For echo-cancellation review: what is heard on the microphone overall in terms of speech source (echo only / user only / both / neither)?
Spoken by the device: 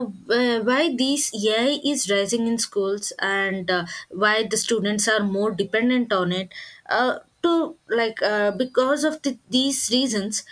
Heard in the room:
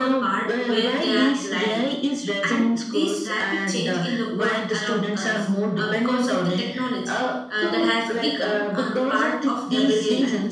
both